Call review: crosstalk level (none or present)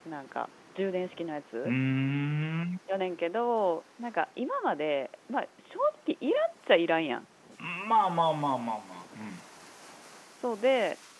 none